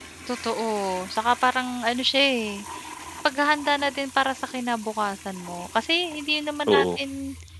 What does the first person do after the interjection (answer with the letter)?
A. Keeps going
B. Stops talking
A